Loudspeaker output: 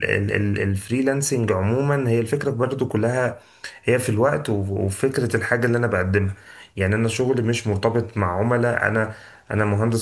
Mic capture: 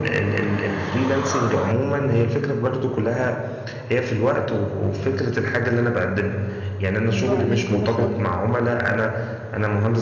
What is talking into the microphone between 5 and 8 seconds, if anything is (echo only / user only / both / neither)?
both